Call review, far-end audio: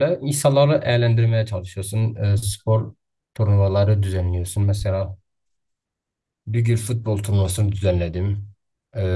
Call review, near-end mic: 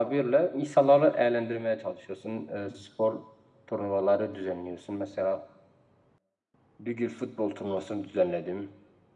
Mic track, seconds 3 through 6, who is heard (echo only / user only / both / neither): echo only